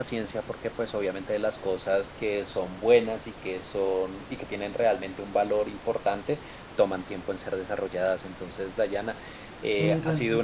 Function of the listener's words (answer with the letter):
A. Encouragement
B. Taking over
A